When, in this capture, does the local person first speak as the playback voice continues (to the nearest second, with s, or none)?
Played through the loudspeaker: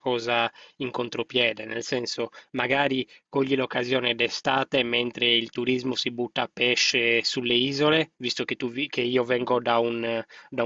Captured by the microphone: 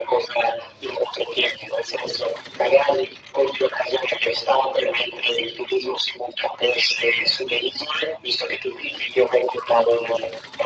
none